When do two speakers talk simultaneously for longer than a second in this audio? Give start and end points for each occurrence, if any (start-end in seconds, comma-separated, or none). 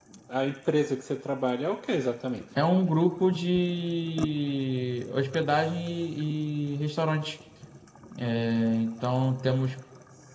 none